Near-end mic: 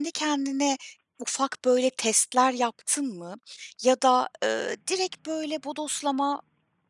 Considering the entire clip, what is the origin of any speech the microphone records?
user only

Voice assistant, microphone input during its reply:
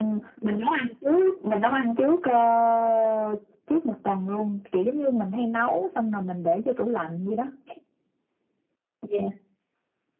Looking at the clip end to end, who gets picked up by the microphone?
echo only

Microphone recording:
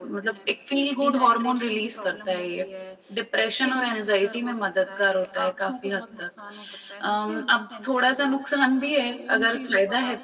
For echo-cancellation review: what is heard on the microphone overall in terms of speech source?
both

